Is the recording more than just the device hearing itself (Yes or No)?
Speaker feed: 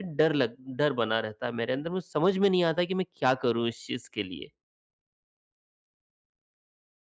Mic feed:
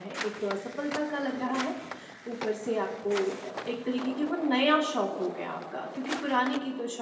Yes